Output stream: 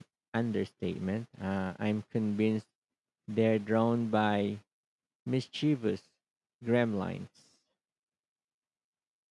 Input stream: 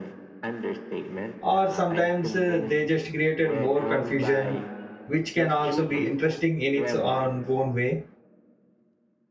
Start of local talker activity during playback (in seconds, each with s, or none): 1.4 s